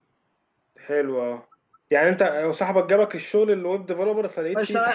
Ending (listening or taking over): taking over